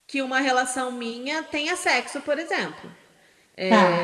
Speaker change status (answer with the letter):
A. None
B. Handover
A